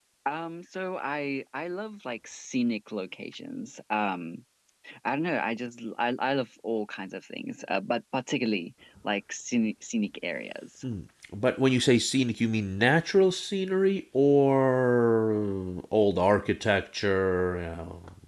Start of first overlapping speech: none

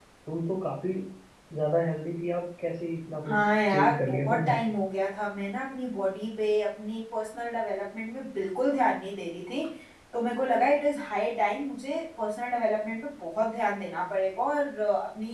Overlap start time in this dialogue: 3.2 s

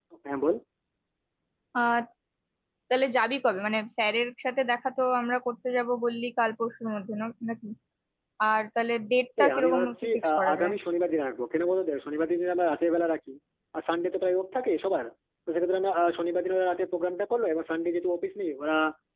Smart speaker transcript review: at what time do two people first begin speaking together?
9.4 s

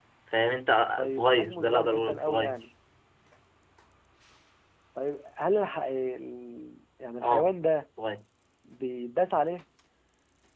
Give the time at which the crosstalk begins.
1.0 s

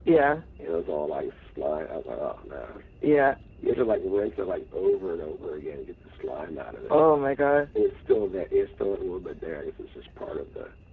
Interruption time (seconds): none

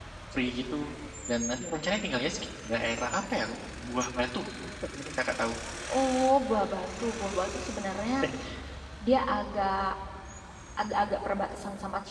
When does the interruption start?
none

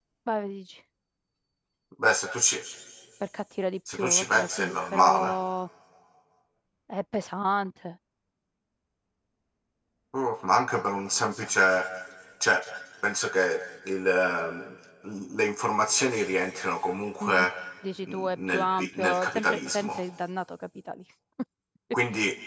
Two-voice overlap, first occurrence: 3.9 s

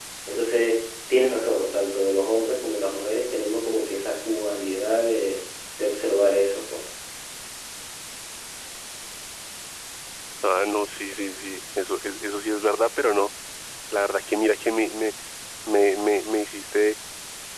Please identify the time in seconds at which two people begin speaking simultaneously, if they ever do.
none

